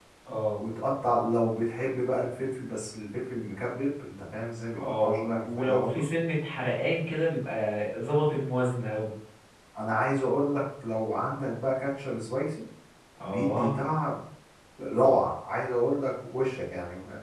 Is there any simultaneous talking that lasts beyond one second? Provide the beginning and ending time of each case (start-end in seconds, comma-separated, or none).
4.8-6.0